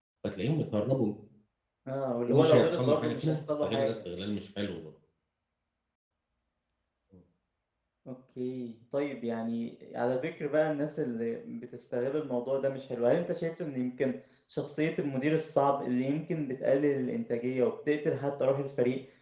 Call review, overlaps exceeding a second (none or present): present